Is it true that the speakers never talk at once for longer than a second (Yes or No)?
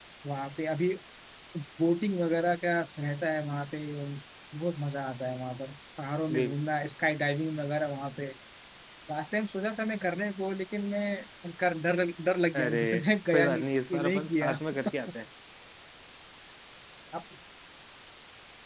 No